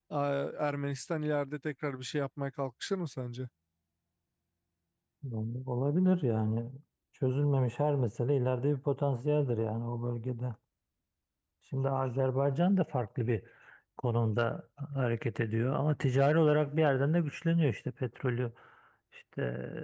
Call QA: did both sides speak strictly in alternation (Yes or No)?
Yes